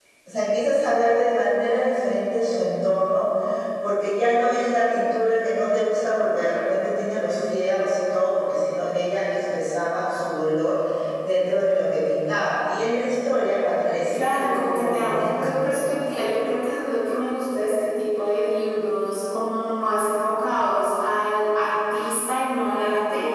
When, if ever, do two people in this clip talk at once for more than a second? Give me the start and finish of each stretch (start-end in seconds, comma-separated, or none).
14.1-16.1